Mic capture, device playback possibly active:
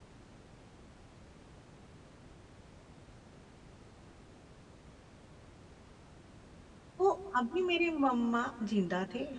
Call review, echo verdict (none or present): none